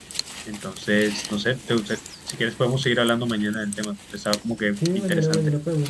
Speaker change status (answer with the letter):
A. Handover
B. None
A